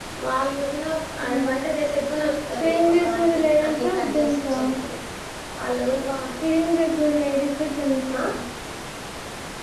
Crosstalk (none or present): present